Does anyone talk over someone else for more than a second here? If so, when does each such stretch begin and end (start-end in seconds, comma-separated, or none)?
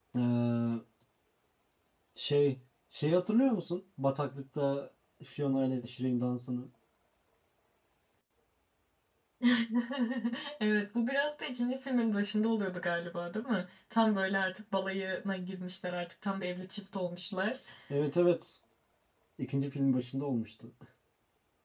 none